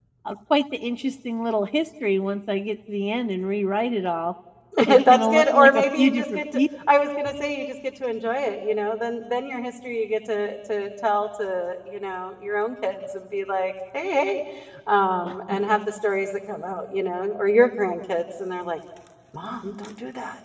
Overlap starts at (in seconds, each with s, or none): 5.1 s